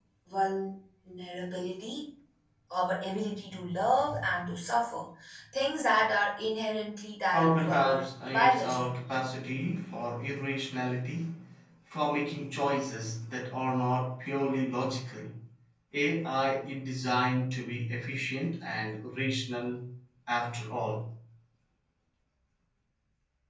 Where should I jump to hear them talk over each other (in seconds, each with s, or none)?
7.3 s